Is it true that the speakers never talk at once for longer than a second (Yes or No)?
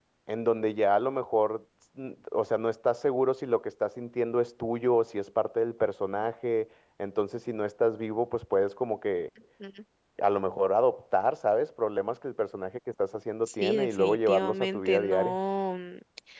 No